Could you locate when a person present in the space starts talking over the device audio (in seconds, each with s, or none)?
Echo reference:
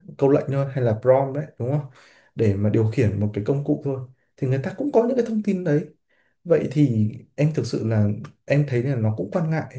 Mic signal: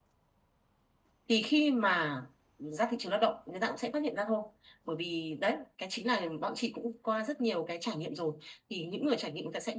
1.3 s